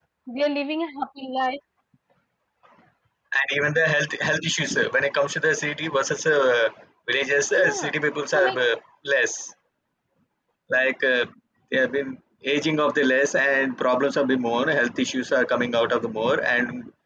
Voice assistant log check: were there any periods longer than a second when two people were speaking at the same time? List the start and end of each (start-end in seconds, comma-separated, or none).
none